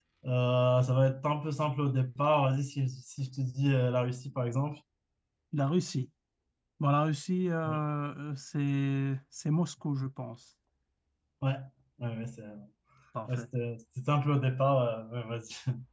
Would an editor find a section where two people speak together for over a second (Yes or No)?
No